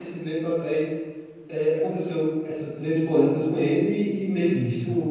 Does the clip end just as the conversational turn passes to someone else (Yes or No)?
No